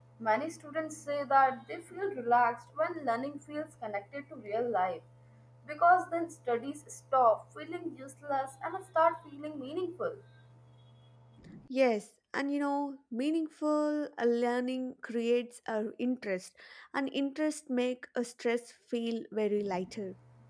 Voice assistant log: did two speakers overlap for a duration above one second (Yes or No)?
No